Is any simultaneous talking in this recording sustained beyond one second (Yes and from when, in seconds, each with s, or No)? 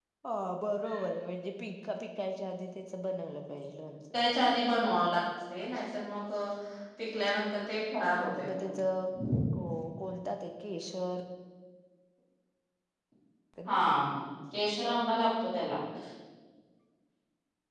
No